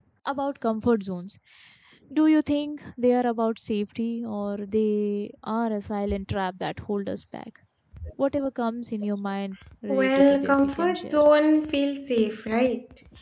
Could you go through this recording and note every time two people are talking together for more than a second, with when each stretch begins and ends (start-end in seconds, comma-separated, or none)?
9.9-11.2